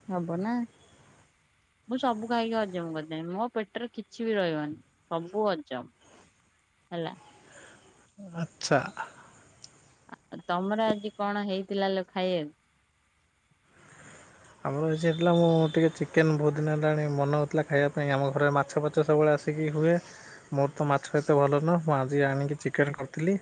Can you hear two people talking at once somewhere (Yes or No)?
No